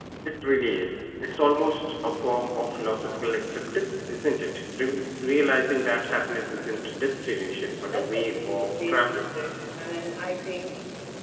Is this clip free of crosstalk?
No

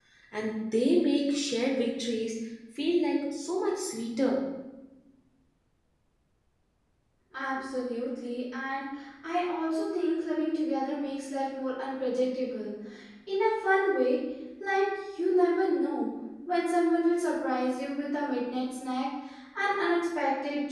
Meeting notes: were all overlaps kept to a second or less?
Yes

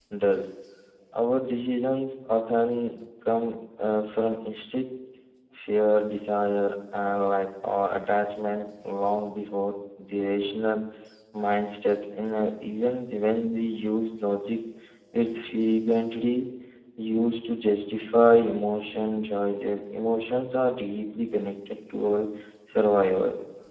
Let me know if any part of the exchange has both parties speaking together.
No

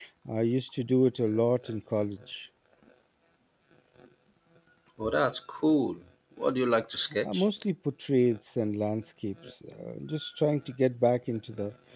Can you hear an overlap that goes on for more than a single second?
No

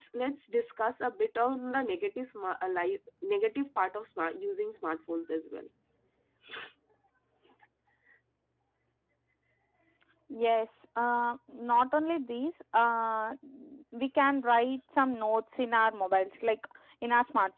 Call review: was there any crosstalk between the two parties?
No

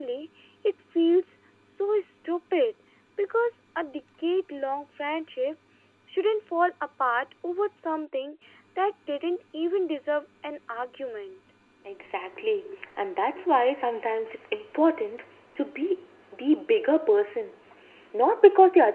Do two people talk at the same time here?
No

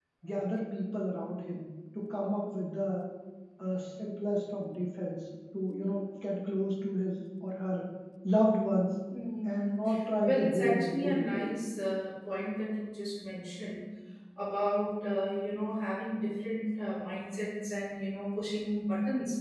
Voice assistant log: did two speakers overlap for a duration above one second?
Yes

